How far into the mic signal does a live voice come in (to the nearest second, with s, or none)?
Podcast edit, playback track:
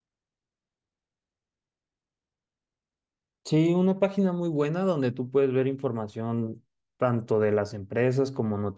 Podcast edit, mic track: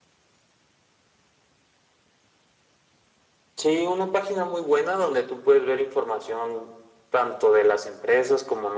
none